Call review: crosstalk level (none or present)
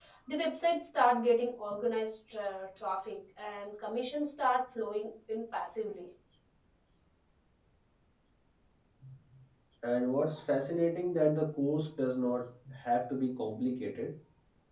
none